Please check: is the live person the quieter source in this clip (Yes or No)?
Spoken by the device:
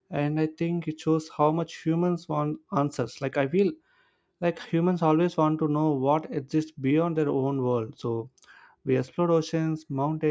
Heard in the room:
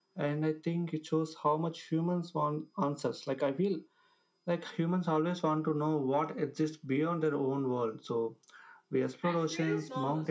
Yes